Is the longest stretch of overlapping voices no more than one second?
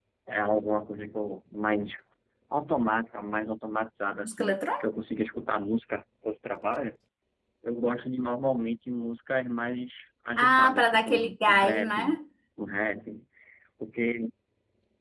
No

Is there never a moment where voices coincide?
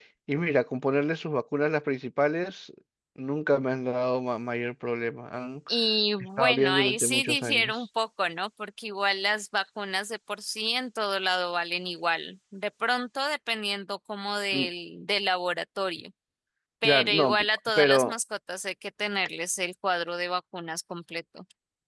No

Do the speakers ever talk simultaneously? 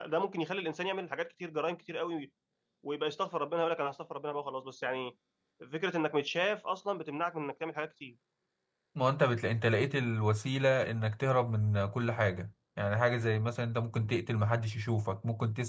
No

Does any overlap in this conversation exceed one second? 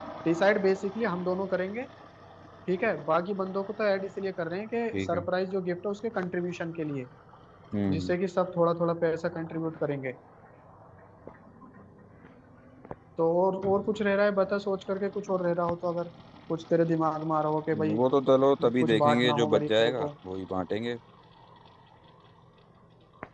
Yes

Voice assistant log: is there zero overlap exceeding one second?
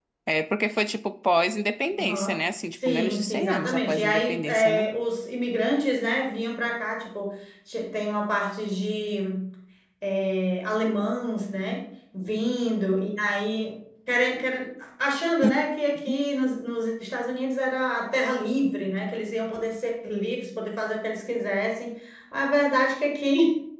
No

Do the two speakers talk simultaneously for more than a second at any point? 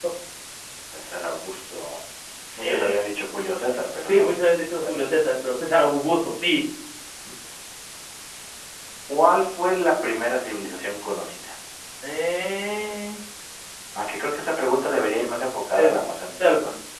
No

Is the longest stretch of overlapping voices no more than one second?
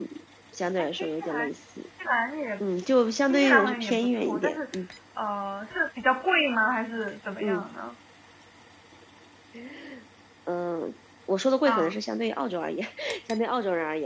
No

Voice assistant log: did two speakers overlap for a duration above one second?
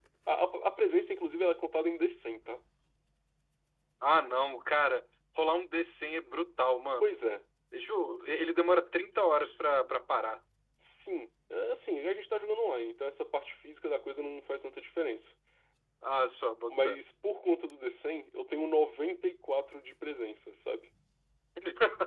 No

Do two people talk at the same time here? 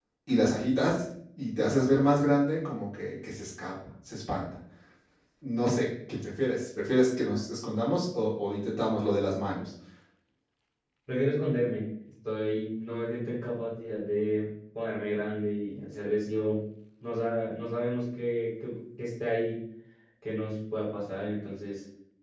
No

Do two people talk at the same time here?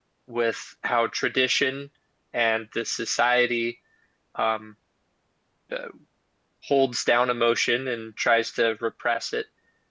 No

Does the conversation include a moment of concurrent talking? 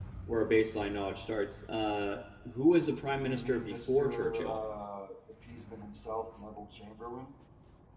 Yes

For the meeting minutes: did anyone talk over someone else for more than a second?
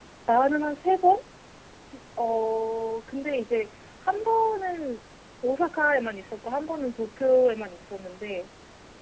No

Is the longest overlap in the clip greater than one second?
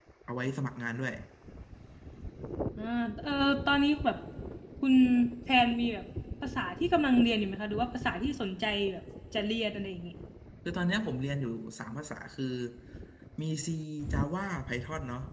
No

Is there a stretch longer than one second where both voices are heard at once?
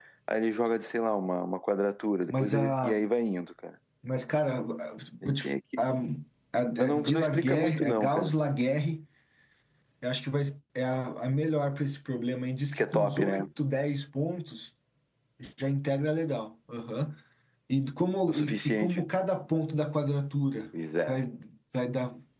Yes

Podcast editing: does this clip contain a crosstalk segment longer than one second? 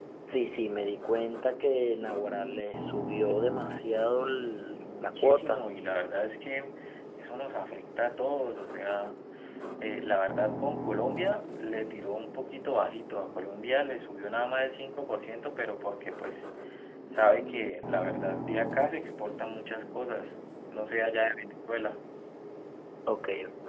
Yes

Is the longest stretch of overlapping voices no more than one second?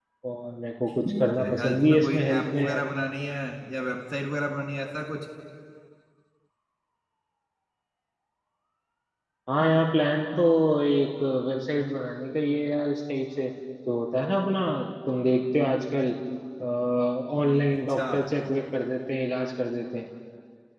No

